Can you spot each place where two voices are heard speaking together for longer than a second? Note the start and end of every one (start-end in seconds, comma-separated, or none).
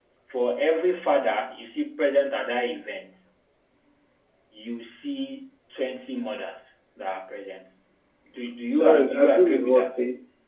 8.7-10.0